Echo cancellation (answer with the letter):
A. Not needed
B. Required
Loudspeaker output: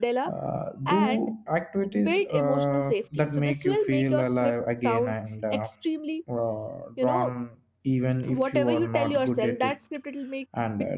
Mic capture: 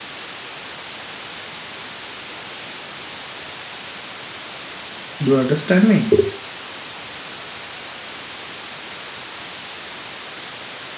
A